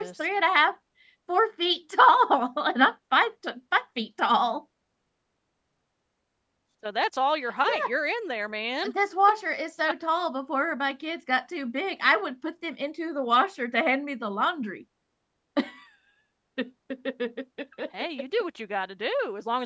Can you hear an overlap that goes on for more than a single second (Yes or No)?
No